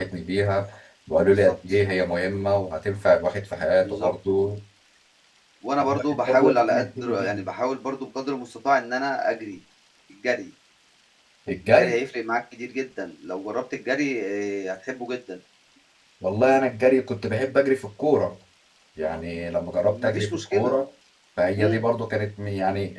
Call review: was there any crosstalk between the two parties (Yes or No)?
Yes